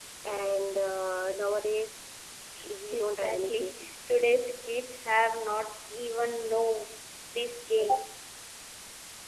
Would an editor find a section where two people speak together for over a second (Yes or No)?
Yes